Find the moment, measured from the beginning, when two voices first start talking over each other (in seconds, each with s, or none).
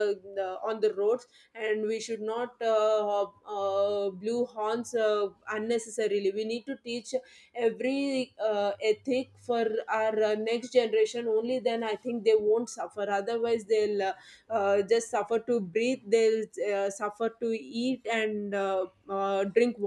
none